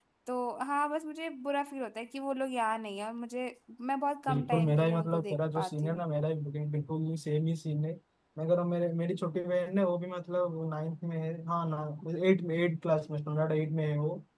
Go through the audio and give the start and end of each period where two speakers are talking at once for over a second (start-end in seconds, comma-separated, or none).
4.3-6.0